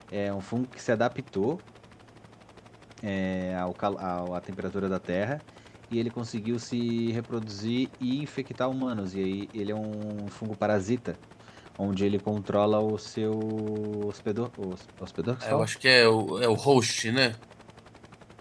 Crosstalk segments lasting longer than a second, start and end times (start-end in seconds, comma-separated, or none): none